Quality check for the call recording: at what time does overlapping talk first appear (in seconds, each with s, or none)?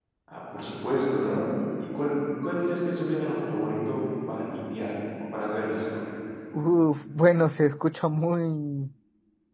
none